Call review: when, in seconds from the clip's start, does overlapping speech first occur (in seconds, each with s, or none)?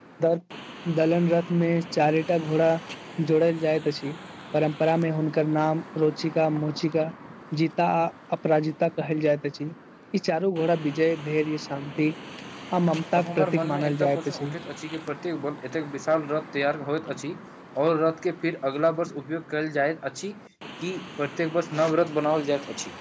13.2 s